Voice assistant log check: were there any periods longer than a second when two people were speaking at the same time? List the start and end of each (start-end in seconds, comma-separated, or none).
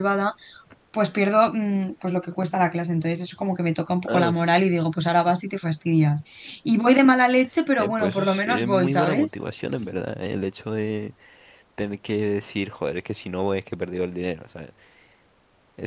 7.8-9.3